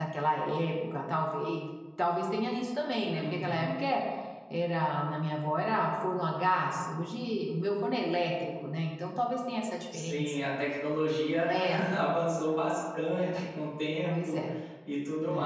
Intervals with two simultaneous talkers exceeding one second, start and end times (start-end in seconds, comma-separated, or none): none